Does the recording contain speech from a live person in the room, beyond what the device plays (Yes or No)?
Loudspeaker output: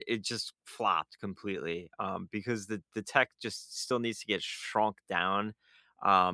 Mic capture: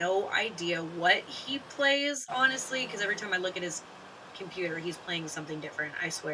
Yes